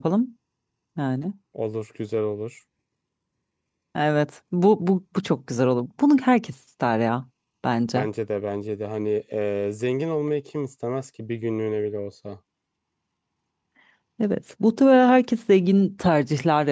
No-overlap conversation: Yes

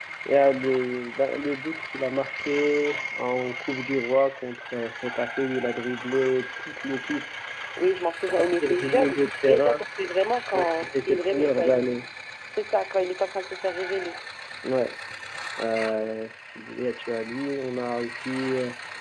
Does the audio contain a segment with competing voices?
Yes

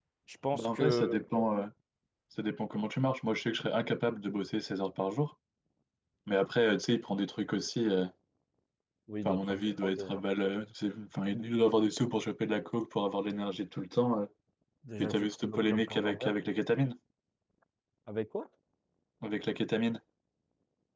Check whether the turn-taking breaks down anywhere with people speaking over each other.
Yes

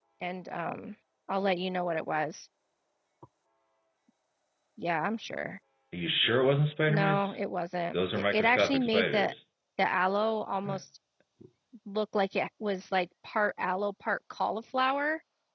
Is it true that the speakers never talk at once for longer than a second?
No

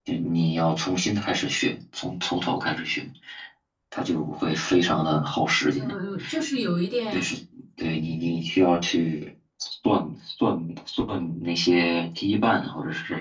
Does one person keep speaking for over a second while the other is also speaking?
No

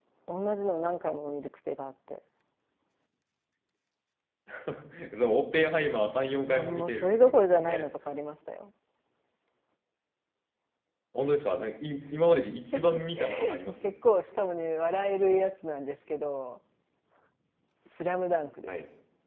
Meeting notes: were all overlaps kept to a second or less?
No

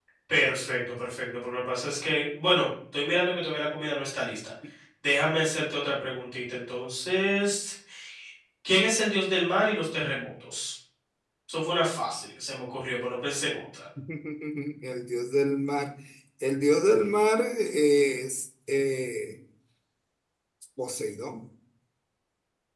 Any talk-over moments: No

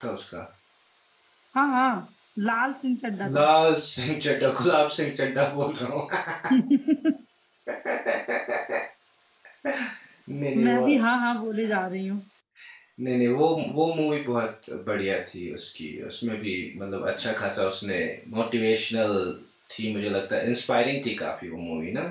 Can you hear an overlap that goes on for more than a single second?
No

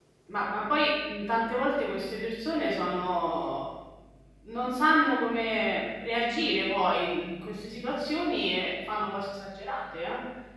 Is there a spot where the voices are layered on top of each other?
No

